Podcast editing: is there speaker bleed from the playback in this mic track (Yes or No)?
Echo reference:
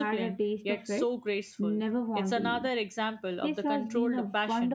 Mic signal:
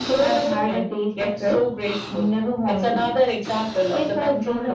Yes